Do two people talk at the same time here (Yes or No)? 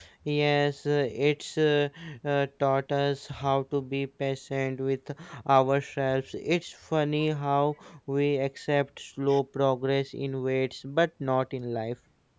No